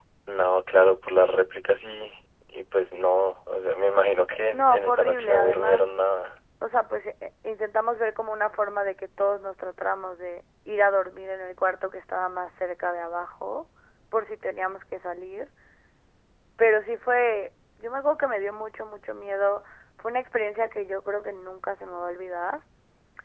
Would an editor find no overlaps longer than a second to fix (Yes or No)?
No